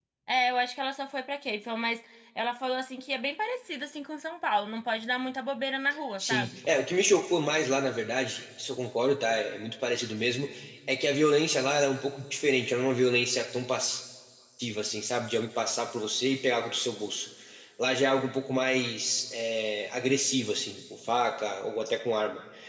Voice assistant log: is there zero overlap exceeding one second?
Yes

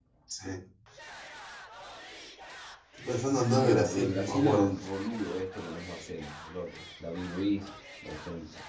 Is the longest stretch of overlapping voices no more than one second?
No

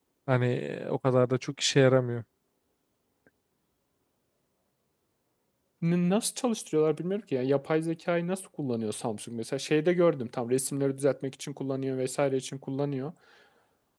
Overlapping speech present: No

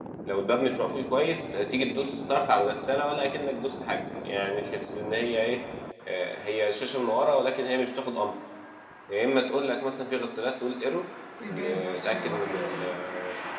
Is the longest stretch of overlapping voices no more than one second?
No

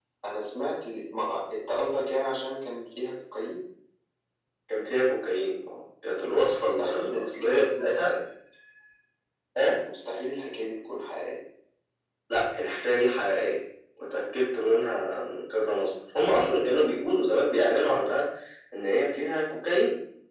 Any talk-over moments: Yes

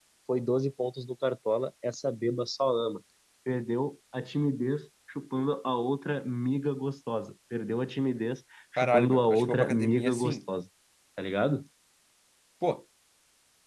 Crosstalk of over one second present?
Yes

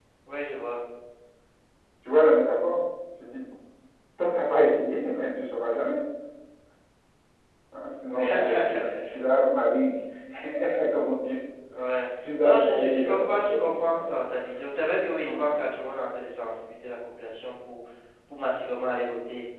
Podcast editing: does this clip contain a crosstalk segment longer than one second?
Yes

